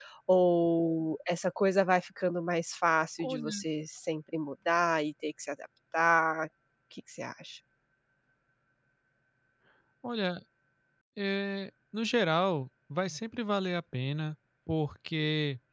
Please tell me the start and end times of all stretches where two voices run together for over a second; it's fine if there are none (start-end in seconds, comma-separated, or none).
none